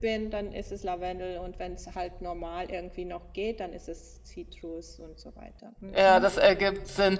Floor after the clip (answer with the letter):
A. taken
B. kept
A